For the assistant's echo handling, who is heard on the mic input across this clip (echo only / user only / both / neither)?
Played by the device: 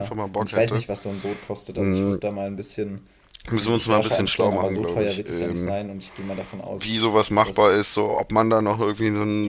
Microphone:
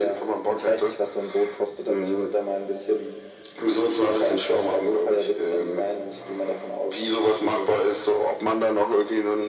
echo only